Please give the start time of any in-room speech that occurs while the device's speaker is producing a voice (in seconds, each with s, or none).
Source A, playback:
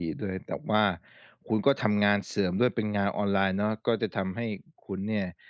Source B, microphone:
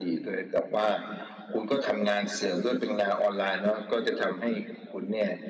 none